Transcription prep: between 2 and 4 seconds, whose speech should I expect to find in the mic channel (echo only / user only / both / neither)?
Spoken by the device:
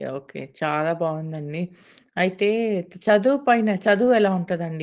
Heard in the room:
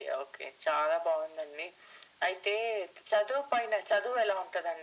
echo only